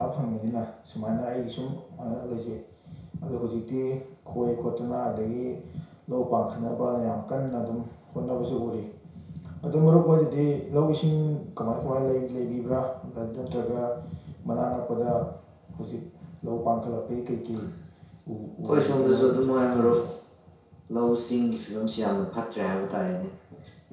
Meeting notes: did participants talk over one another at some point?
Yes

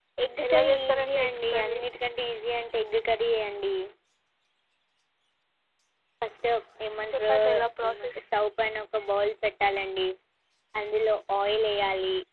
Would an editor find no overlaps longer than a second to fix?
No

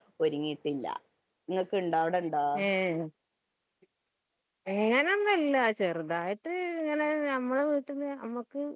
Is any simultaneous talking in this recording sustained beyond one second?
No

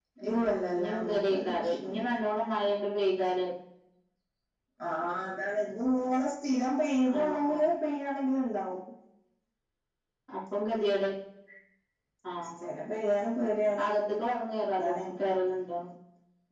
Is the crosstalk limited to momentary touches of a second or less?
No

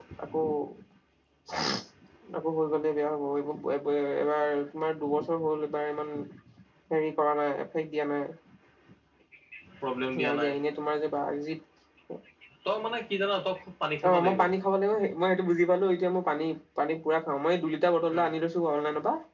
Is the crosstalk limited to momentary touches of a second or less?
Yes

